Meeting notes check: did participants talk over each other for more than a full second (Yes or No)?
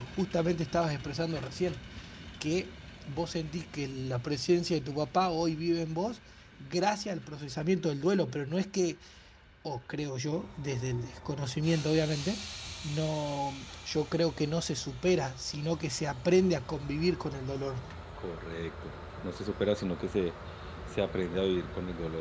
No